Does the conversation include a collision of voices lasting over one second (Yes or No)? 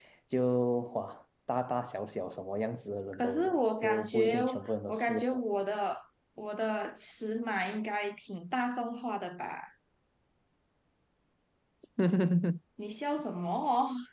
Yes